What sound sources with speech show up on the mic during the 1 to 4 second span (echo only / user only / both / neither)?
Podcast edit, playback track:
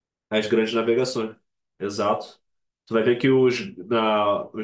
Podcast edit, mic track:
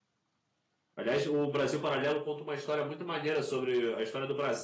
user only